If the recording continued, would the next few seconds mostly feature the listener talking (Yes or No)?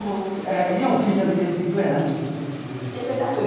Yes